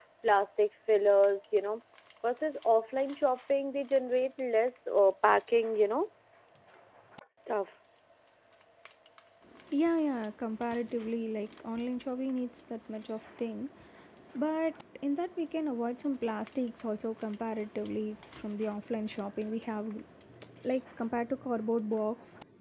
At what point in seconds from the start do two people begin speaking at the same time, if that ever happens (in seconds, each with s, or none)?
none